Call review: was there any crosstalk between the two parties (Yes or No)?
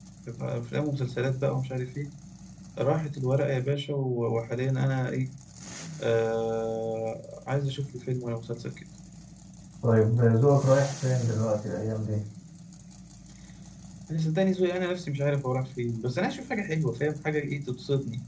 No